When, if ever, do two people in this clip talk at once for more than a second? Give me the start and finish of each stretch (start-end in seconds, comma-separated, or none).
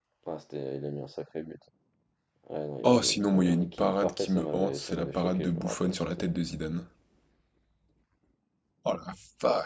2.8-6.3